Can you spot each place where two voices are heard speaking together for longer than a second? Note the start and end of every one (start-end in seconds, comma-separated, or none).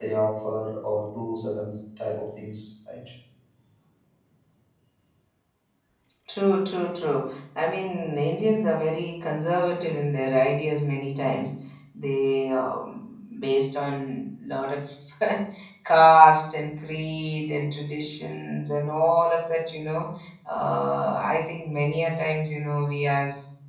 none